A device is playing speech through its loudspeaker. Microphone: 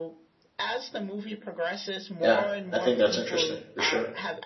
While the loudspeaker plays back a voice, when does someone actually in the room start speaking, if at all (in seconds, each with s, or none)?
2.2 s